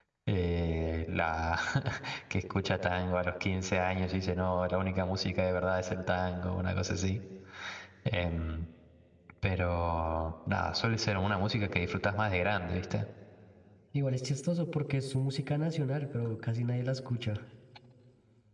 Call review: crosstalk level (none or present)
none